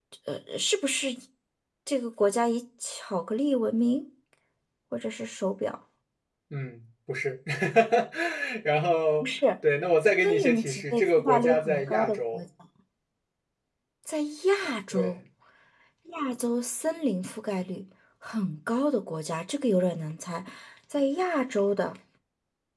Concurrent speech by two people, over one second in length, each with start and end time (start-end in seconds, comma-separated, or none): 10.2-12.4